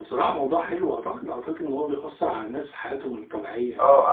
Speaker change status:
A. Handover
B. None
A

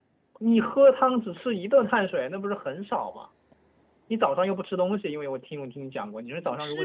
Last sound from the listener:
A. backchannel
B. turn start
B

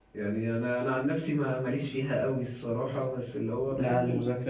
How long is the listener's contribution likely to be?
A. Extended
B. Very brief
A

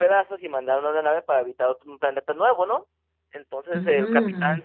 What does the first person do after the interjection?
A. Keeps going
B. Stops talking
A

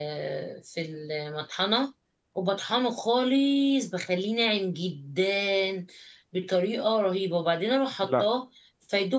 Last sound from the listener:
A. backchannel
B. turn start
A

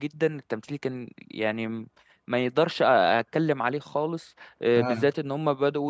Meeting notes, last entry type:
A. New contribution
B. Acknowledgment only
B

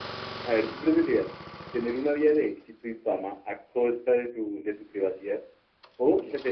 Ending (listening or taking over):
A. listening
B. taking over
A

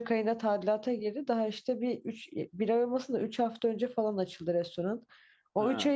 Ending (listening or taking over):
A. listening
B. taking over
A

